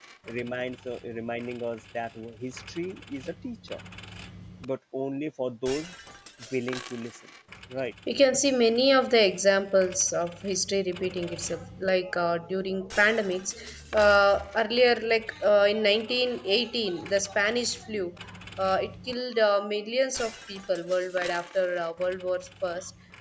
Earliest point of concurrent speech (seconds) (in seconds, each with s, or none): none